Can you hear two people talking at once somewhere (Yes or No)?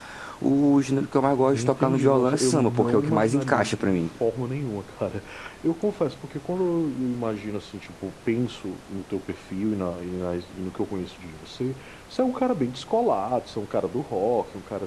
Yes